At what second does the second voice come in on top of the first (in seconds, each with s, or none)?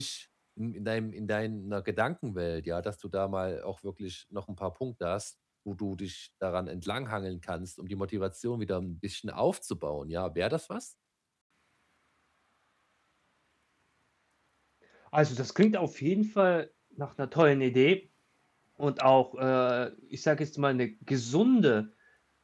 none